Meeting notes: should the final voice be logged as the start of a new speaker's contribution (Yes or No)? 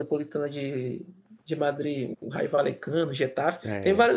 No